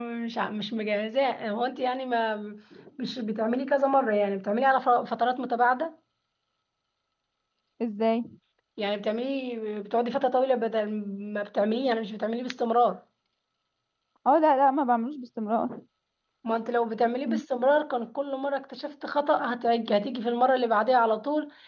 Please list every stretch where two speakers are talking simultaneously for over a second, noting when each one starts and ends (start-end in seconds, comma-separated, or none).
none